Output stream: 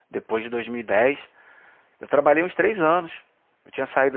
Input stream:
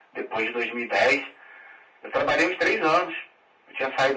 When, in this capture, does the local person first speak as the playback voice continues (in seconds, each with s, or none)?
none